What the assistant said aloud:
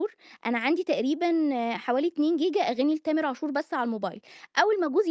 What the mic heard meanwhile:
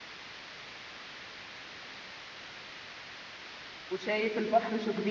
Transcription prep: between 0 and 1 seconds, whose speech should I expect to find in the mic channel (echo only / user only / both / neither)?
neither